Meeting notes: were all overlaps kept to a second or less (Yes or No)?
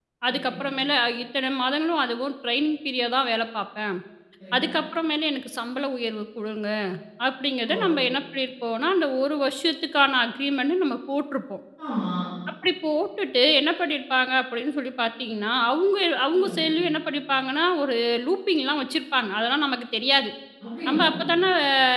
Yes